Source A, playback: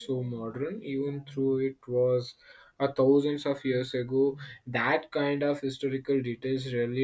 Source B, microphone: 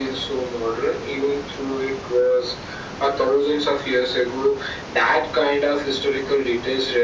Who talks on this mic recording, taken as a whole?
echo only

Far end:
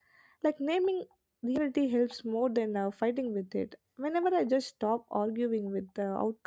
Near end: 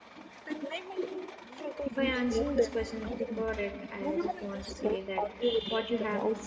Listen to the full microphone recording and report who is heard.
both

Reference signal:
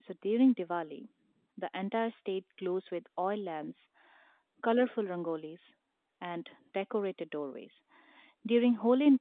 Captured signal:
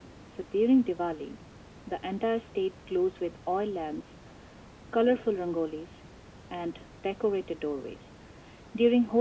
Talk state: echo only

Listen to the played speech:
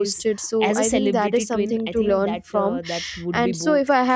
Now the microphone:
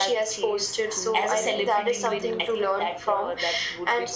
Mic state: both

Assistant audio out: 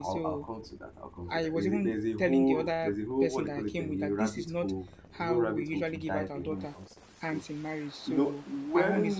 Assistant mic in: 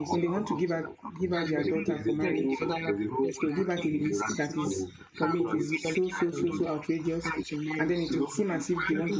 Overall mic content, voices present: both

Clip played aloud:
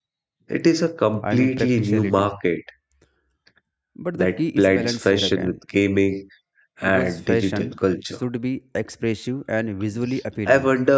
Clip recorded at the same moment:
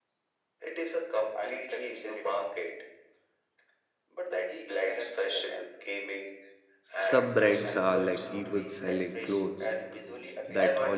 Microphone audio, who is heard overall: both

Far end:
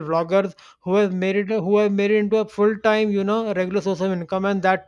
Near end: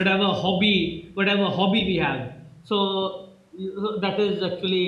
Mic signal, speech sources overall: user only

